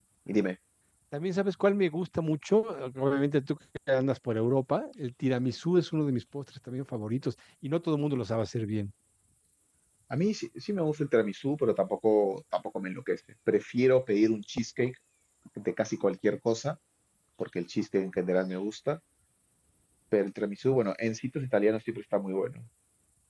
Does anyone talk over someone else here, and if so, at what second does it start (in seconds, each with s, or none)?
none